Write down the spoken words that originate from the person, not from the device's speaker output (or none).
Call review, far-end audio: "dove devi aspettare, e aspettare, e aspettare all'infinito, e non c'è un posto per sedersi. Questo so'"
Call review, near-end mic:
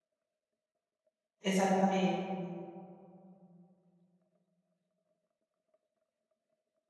Esattamente.